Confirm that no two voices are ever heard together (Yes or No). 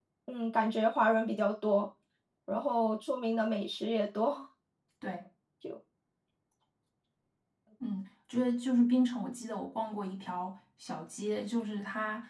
Yes